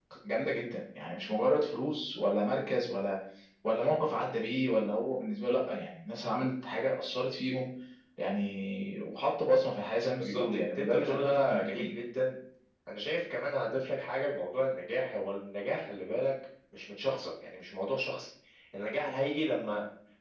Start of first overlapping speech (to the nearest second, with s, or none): 10 s